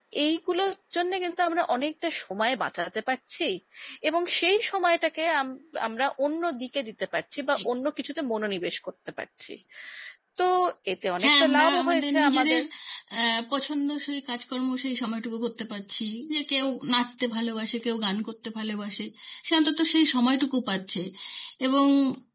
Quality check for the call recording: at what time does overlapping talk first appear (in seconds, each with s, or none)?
11.2 s